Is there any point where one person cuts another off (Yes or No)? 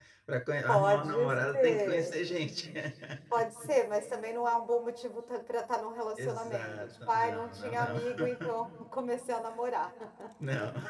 Yes